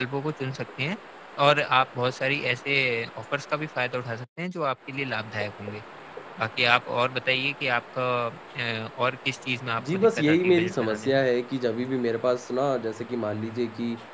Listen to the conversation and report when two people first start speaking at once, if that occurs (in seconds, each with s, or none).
9.8 s